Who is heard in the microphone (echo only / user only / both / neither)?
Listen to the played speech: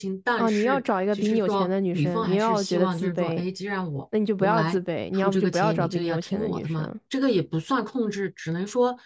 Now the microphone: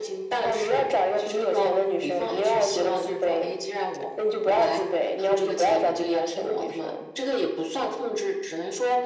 echo only